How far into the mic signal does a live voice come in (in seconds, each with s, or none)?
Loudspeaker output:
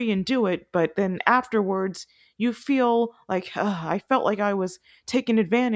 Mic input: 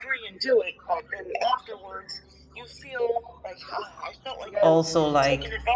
4.6 s